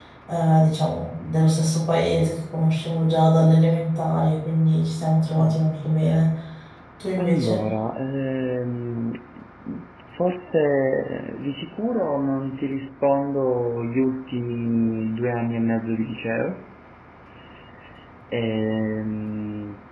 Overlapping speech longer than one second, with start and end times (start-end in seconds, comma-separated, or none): none